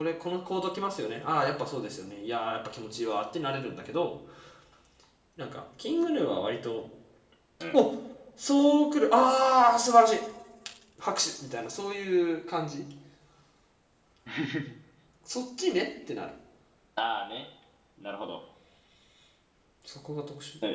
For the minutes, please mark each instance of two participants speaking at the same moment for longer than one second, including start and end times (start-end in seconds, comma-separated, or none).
none